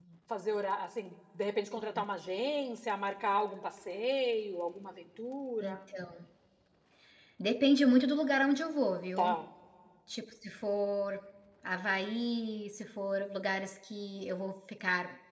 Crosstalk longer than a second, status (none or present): none